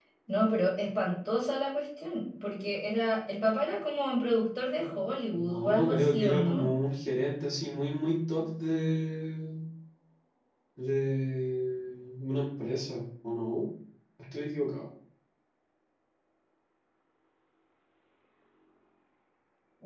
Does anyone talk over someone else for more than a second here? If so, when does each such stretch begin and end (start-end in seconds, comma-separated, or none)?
5.3-6.7